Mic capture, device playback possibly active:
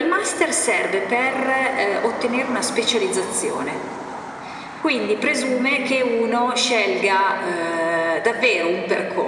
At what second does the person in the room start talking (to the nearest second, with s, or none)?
none